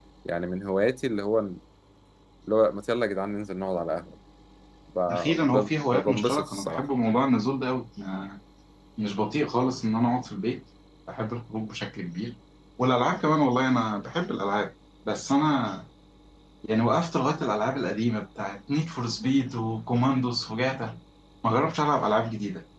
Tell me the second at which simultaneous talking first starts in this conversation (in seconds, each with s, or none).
5.1 s